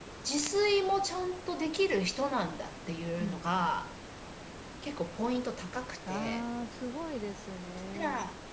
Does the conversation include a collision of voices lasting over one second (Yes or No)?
No